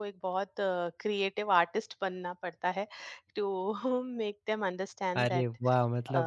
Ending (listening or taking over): taking over